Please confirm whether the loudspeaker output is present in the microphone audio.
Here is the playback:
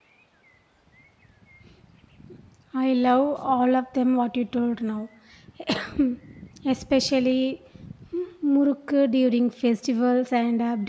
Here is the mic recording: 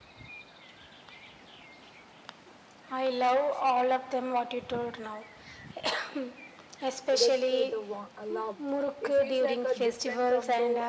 Yes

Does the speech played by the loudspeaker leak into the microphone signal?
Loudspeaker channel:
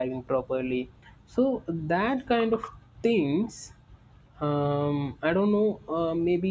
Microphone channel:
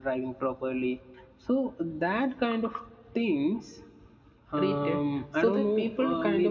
Yes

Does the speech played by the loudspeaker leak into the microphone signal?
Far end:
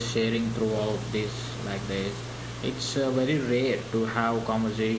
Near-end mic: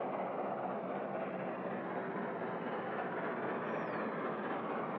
No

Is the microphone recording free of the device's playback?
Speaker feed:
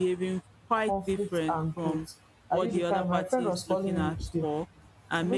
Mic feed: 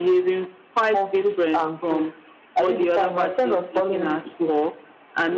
No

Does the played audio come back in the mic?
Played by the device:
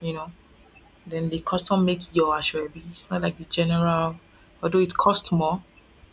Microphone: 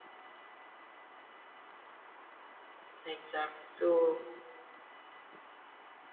No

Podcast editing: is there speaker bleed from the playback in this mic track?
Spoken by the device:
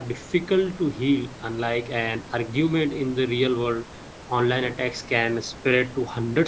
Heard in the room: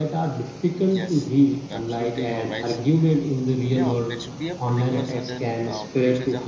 Yes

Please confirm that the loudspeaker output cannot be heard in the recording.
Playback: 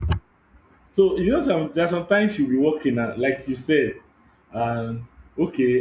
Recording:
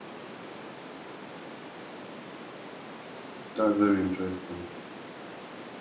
Yes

